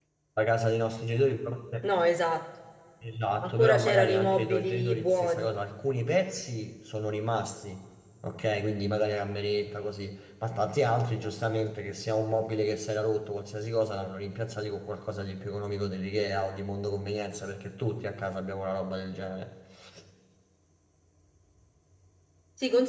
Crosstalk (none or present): present